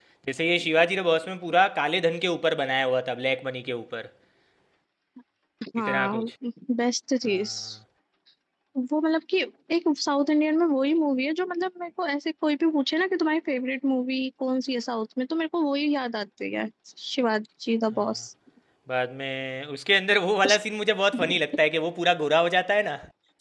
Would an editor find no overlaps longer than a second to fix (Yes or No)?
Yes